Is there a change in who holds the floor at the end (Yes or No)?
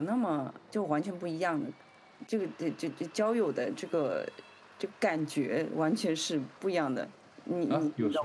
Yes